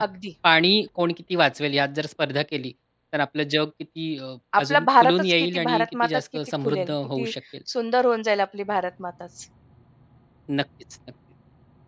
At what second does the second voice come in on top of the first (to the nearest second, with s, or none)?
5 s